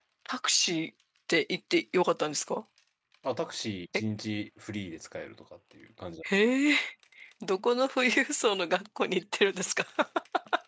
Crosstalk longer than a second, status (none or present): none